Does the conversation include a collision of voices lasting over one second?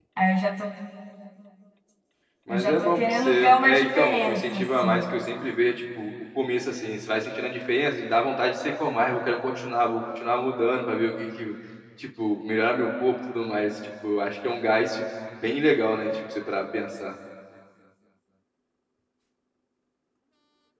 Yes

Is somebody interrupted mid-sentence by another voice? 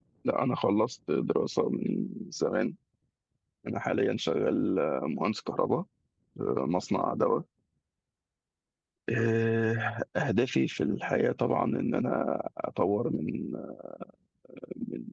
No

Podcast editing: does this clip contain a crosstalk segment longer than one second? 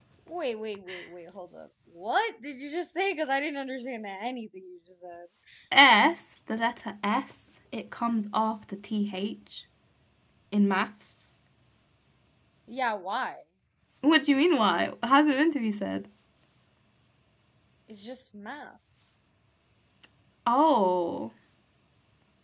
No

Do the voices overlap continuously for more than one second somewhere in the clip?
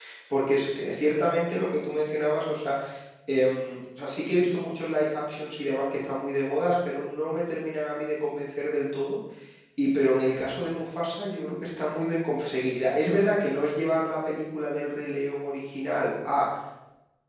No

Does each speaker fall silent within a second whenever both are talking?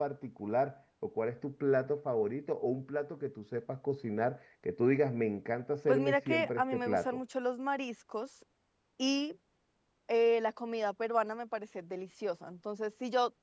No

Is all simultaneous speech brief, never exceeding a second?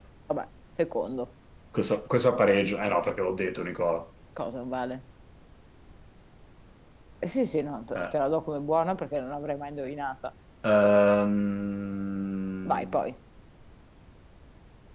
Yes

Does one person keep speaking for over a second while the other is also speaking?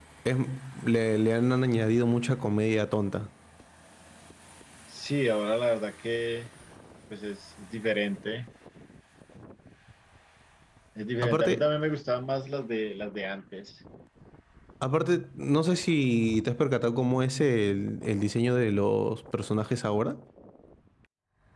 No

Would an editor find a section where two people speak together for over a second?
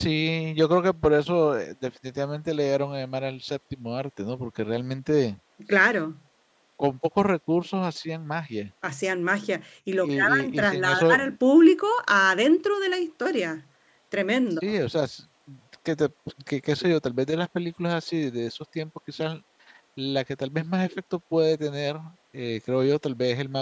Yes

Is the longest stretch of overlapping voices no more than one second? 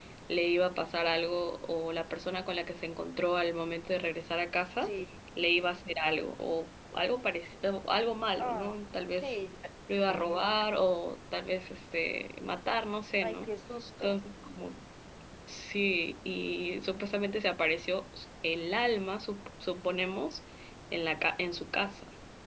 Yes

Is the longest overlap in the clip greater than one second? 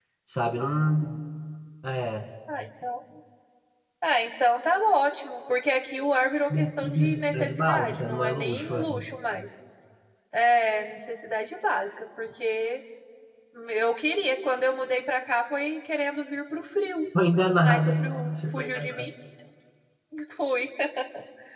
Yes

